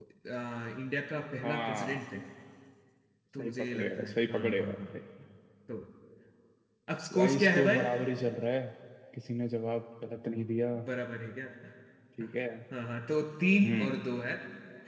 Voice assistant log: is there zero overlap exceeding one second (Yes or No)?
No